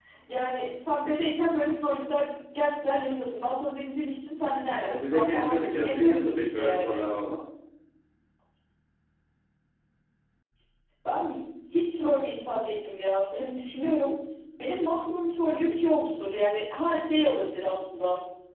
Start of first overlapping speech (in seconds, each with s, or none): 4.8 s